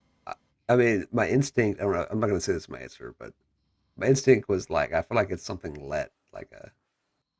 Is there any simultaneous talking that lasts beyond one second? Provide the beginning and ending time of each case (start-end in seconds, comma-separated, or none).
none